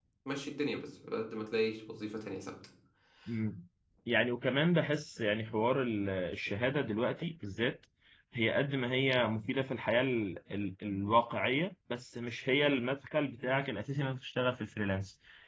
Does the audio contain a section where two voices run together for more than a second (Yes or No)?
No